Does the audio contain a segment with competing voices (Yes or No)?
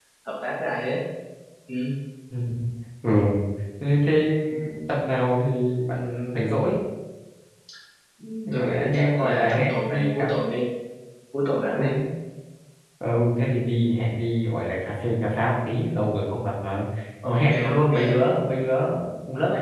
Yes